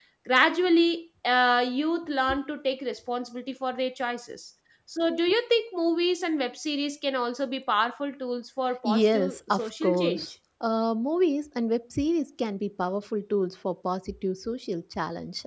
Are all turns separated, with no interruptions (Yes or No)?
No